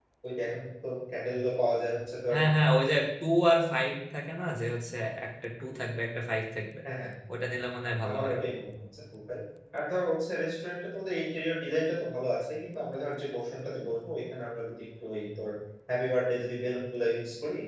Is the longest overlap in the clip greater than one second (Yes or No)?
No